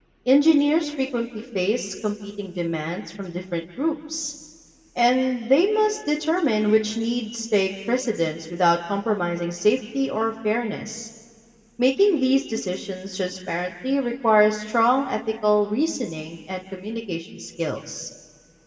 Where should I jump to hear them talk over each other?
none

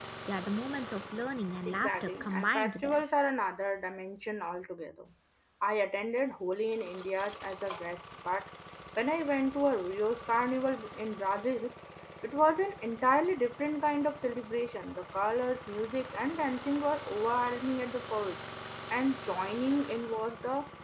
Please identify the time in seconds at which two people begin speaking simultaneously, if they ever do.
1.6 s

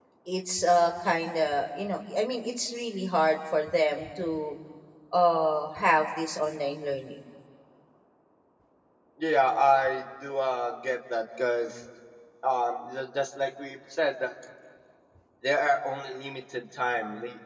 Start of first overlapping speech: none

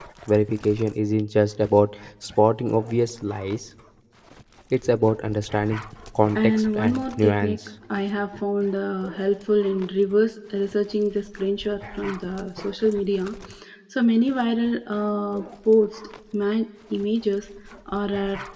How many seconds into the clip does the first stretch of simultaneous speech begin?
6.4 s

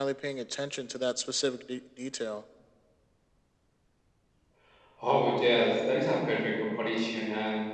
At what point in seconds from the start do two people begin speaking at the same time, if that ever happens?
none

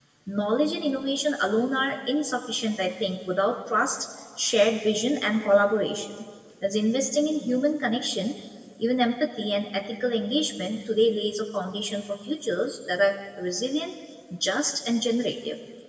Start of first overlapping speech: none

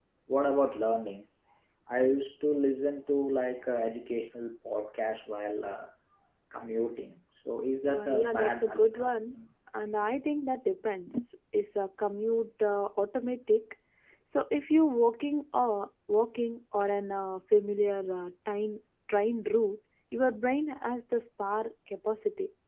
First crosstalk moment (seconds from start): 7.9 s

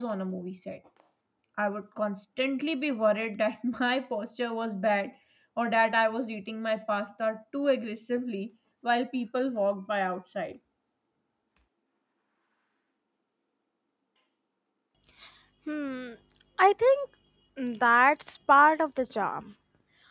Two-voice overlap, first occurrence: none

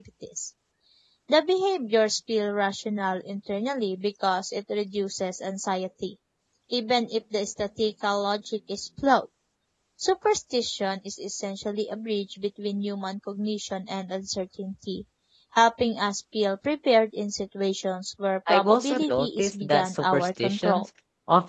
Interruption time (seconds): 18.5 s

